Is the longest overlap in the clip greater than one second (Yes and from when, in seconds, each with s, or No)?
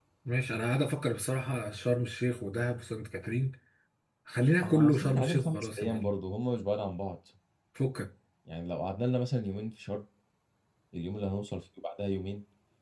Yes, from 4.6 s